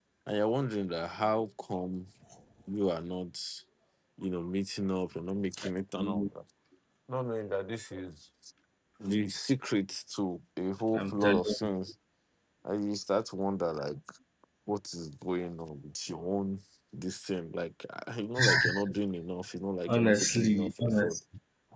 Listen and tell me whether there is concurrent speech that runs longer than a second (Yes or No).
Yes